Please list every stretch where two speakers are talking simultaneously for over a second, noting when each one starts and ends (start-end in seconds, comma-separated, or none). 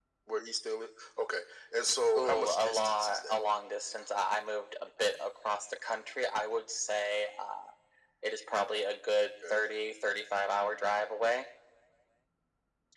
2.2-3.4